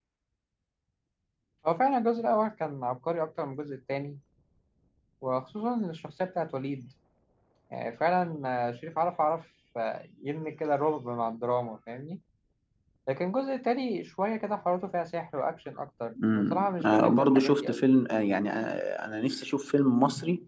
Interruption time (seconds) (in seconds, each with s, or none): 16.2 s